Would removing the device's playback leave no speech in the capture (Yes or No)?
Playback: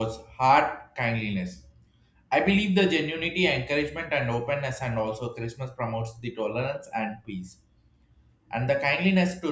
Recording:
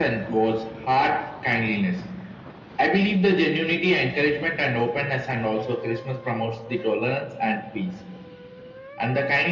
Yes